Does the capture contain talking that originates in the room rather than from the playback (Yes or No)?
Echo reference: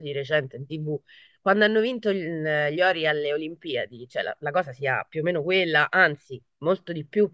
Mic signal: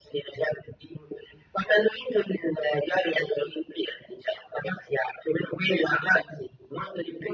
No